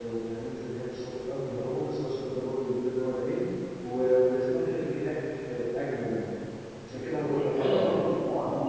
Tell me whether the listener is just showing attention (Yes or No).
No